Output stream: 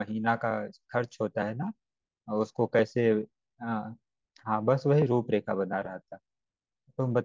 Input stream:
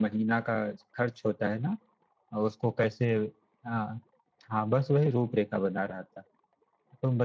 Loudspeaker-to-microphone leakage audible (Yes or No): Yes